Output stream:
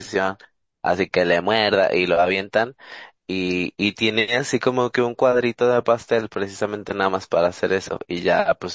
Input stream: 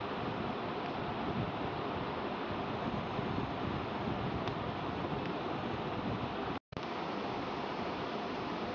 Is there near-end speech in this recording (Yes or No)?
No